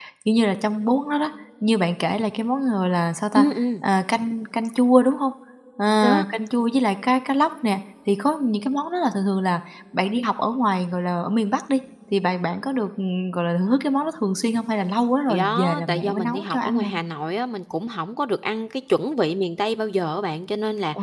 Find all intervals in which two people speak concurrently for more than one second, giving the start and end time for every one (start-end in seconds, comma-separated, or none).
15.3-16.9